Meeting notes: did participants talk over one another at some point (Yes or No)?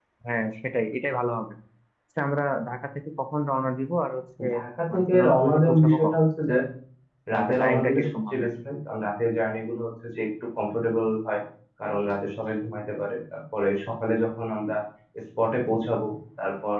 Yes